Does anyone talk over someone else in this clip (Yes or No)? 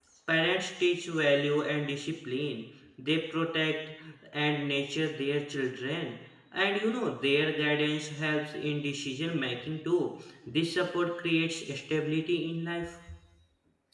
No